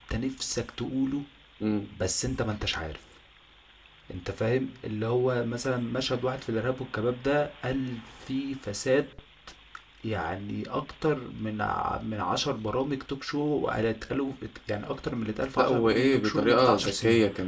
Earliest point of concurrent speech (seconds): 15.6 s

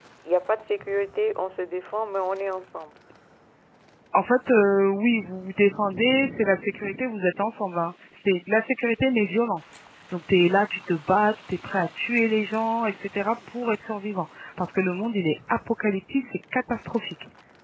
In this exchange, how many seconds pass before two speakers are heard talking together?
none

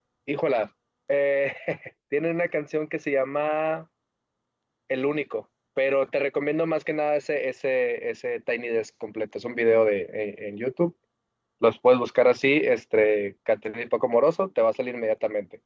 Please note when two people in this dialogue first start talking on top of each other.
none

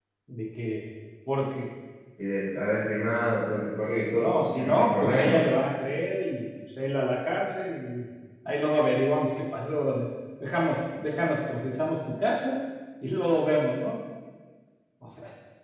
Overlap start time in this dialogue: 4.2 s

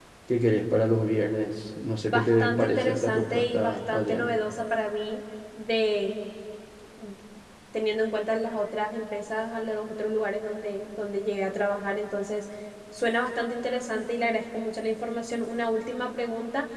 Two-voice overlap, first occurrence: 2.1 s

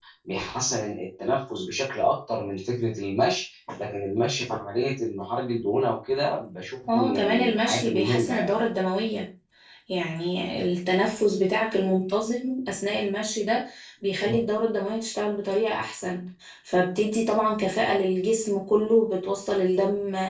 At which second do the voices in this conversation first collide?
6.9 s

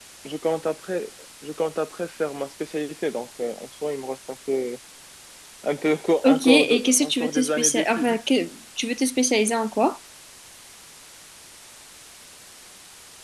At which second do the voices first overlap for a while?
6.2 s

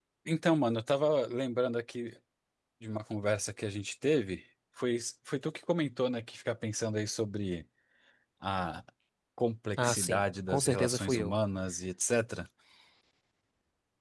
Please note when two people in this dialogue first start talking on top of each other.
9.8 s

